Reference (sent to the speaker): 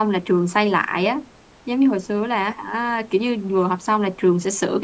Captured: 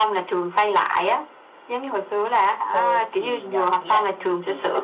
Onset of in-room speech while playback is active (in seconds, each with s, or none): 2.6 s